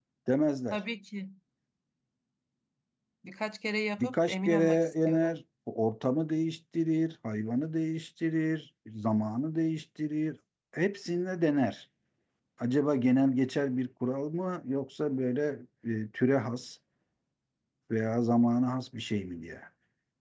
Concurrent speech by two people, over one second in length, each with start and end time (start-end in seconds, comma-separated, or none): 4.0-5.3